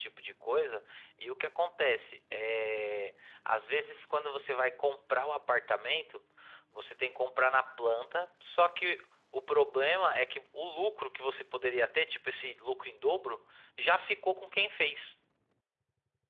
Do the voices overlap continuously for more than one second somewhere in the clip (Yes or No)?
No